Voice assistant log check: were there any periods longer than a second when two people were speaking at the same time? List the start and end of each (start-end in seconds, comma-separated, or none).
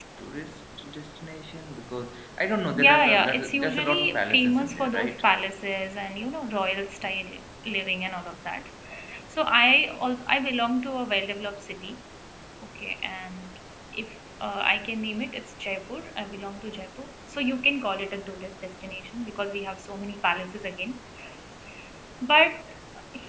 2.8-5.2